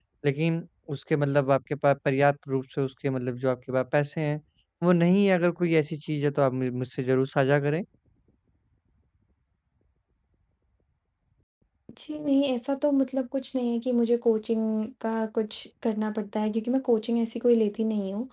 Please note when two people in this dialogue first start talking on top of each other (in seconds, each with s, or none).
none